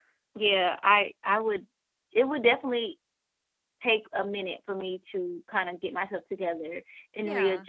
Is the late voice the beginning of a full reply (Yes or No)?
No